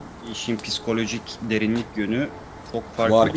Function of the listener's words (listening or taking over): taking over